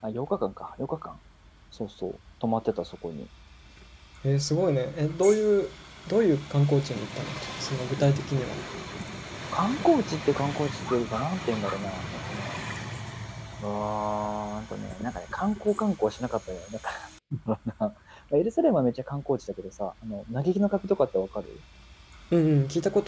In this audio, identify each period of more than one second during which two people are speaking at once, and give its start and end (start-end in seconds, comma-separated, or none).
none